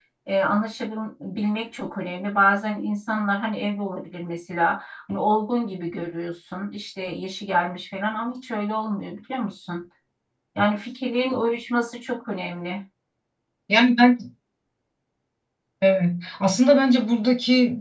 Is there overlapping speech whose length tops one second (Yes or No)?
No